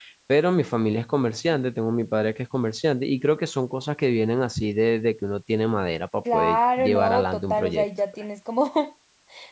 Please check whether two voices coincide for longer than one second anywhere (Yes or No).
Yes